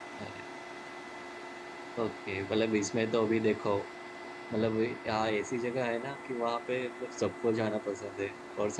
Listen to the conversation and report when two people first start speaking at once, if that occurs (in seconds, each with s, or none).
none